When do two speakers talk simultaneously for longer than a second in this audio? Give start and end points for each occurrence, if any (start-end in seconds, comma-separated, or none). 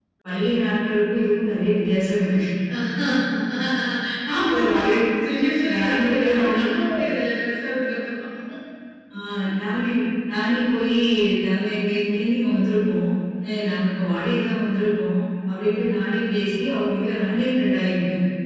5.7-7.0